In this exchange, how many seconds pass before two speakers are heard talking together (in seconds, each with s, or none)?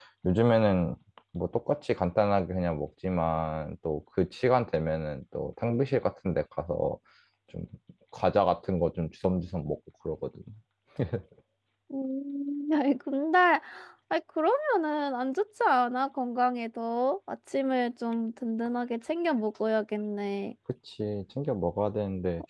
none